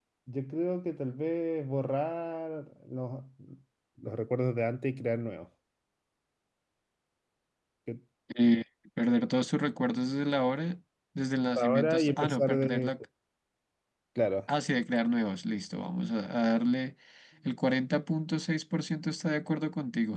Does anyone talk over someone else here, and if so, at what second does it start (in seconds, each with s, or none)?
11.6 s